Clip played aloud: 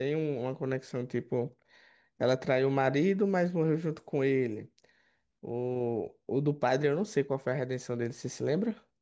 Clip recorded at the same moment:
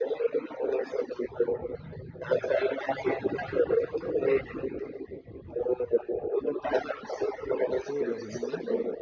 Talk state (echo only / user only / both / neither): both